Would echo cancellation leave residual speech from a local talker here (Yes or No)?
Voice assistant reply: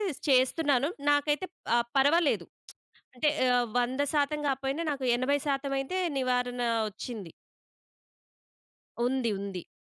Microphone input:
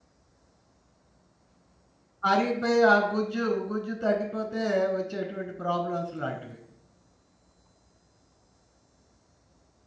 Yes